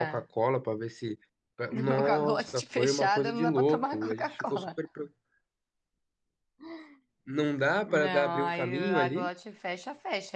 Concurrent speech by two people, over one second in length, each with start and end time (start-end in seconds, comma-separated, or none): 1.7-4.7, 7.9-9.3